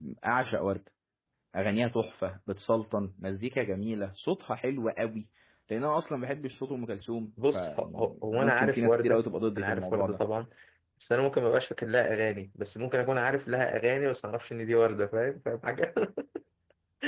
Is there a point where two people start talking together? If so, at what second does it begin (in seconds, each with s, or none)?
7.4 s